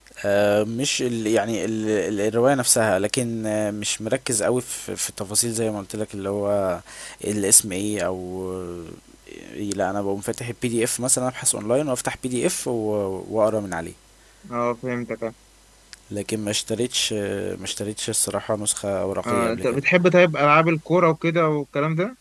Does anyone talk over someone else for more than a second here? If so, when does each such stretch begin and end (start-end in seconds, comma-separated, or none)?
none